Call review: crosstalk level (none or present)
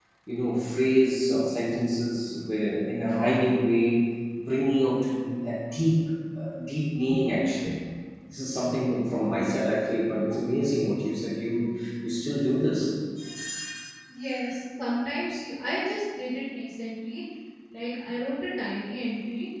none